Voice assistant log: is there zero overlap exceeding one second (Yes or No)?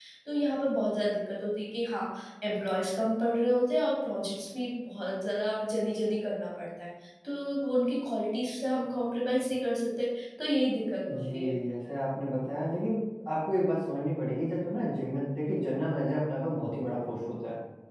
Yes